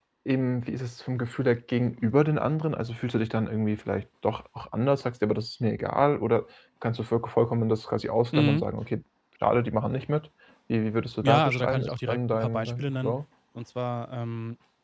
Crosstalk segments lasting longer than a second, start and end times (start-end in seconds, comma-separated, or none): 11.2-13.1